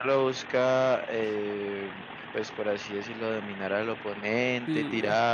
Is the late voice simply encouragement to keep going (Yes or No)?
Yes